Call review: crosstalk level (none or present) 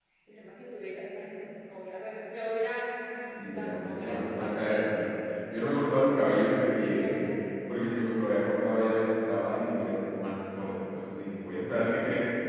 present